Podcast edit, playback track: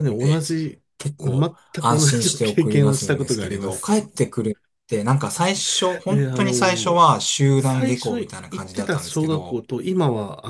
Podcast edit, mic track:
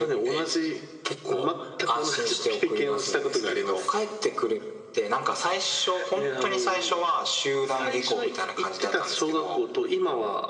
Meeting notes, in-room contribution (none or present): none